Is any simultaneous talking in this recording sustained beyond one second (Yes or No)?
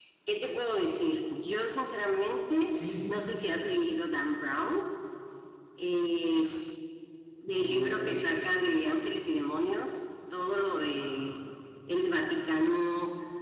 Yes